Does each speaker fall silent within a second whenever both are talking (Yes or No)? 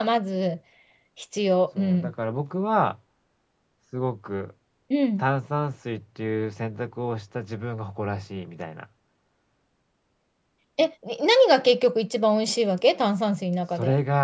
Yes